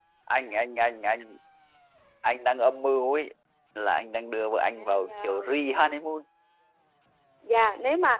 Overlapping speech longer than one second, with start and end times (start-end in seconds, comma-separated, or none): 4.7-6.0